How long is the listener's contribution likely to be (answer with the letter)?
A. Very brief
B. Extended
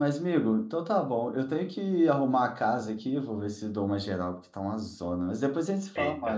B